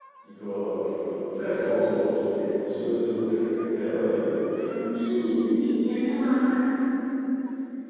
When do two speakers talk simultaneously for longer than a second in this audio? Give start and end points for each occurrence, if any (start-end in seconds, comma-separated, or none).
none